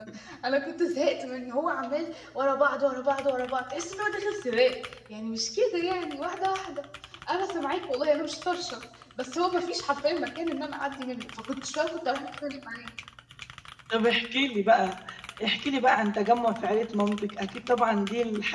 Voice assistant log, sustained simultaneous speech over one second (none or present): none